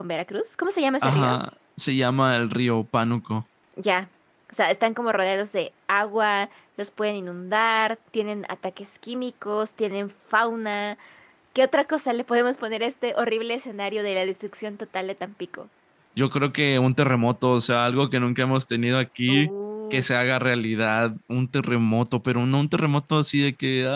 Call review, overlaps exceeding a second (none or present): none